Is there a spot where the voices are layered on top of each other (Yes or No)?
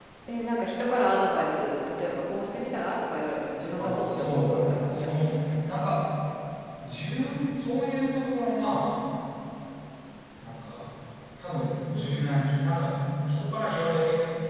Yes